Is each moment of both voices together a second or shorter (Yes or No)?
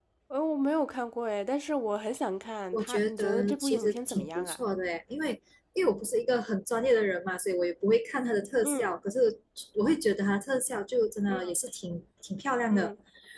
No